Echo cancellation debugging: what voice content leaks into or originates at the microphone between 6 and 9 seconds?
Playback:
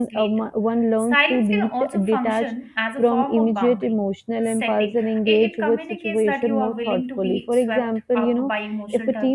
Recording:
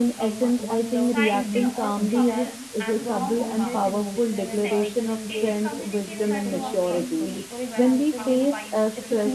both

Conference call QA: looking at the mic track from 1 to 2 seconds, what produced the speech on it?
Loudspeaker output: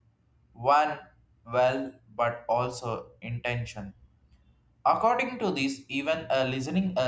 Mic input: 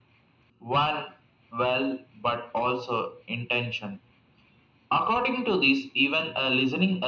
echo only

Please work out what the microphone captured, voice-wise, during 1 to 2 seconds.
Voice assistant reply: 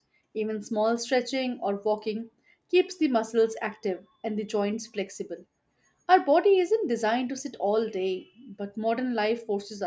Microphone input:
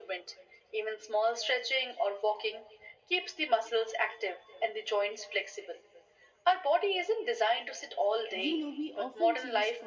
echo only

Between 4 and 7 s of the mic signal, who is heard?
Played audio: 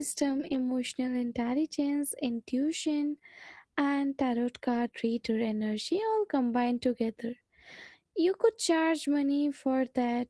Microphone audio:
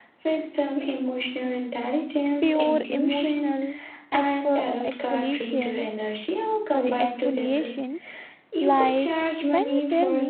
both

